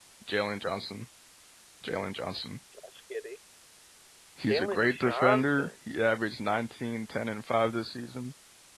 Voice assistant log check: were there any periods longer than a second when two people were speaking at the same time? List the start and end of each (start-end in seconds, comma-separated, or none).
4.4-5.7